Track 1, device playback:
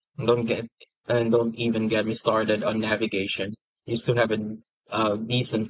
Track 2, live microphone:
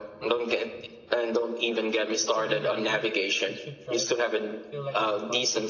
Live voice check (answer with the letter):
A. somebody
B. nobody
A